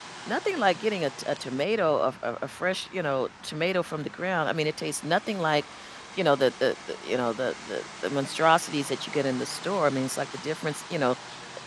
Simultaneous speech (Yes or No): No